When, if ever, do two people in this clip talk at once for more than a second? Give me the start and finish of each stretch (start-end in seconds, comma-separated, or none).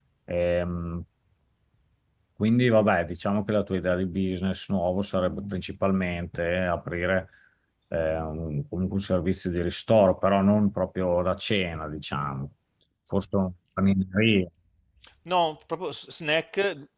none